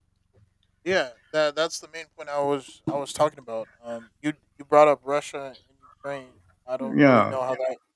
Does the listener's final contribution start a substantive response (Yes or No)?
No